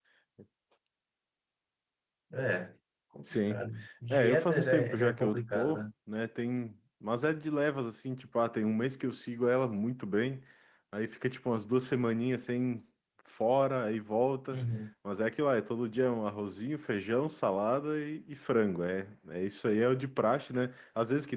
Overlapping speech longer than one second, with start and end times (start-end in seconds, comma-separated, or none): 4.1-5.8